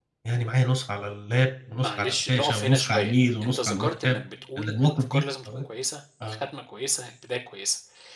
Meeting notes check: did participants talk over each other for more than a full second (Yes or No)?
Yes